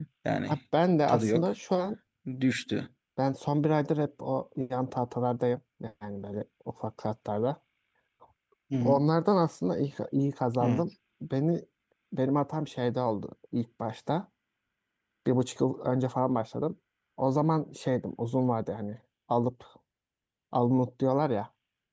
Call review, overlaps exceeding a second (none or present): none